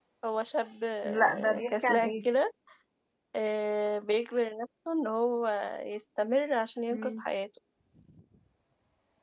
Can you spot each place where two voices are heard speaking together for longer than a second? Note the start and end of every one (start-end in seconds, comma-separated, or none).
1.0-2.2